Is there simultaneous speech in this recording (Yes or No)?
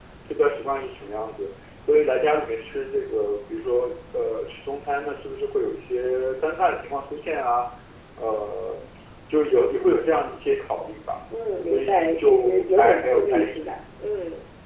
Yes